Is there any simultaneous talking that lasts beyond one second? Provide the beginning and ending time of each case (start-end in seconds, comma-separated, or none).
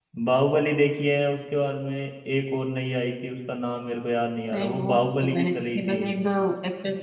4.5-6.0